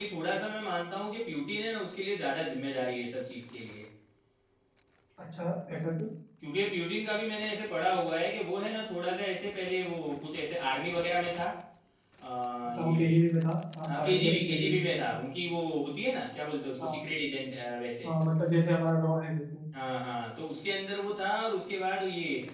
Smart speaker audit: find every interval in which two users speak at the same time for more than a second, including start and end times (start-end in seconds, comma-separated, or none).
13.9-15.1